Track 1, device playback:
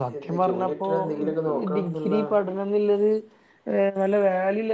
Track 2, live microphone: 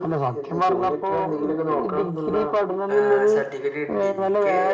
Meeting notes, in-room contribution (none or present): present